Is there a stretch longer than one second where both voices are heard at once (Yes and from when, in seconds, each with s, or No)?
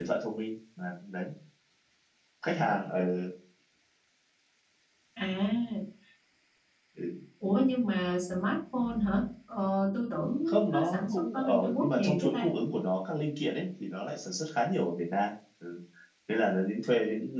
Yes, from 10.5 s